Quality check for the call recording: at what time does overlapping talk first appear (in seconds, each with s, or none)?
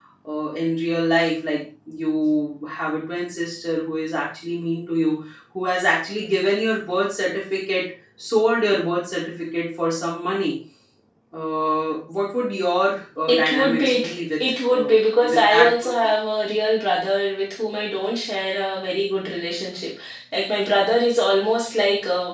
13.2 s